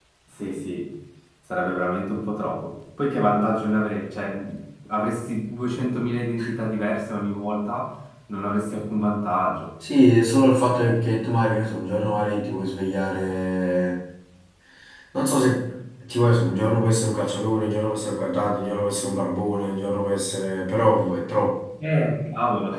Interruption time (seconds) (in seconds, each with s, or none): none